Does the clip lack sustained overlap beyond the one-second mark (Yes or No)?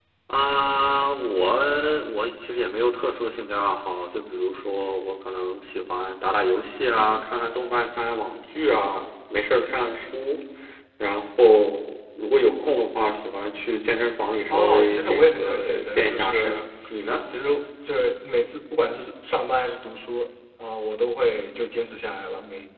No